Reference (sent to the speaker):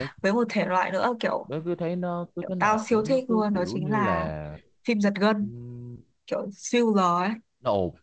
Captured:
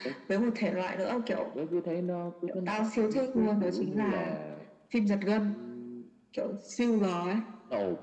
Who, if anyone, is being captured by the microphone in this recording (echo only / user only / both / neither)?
echo only